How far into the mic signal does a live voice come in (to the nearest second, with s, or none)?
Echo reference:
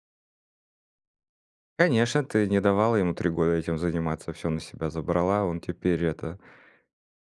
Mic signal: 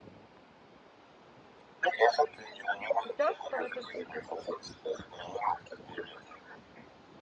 3 s